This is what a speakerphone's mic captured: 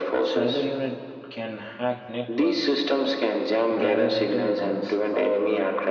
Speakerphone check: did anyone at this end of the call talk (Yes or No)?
Yes